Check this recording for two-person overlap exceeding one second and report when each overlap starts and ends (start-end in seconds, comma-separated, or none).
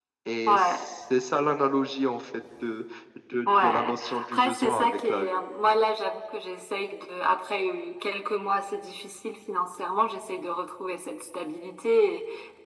3.5-5.4